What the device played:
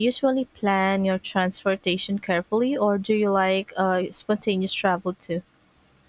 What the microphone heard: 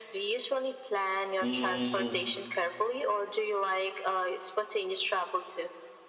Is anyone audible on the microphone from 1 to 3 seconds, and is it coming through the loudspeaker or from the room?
both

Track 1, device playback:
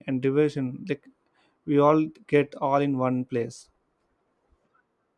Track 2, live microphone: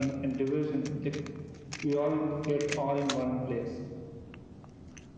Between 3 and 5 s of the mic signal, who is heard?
echo only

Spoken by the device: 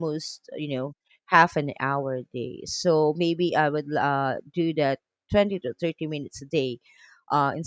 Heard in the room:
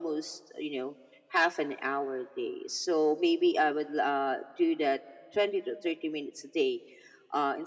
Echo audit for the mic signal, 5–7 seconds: echo only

